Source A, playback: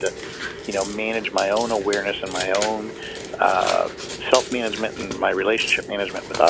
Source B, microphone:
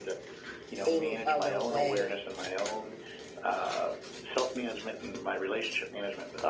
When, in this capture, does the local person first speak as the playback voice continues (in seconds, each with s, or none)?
0.8 s